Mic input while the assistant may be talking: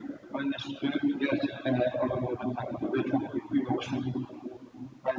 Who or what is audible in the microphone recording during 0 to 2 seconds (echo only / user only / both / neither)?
echo only